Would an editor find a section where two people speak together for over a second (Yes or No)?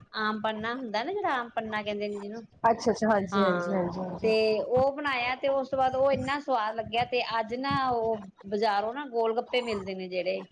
No